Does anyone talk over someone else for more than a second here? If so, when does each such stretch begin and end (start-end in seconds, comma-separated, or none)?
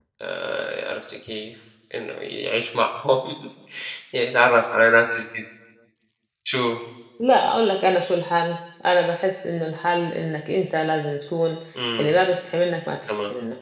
none